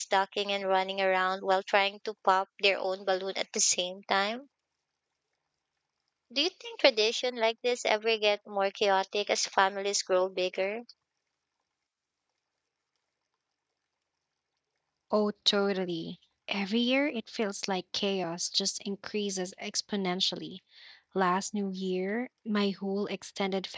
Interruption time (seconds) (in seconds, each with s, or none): none